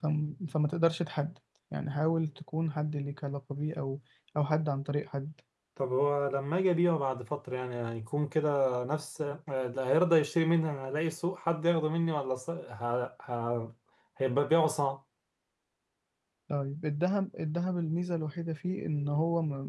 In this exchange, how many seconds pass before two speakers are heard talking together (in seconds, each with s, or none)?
none